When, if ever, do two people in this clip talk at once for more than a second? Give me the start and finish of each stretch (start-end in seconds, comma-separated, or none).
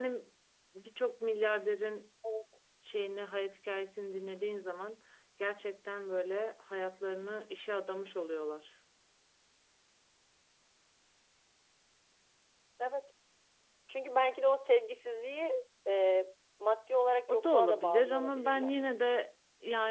17.3-18.8